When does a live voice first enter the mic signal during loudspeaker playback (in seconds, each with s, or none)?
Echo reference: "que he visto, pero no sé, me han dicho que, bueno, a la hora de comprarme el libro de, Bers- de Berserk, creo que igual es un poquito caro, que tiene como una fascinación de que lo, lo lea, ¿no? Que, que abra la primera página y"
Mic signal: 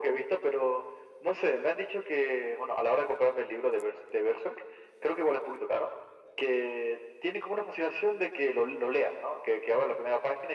none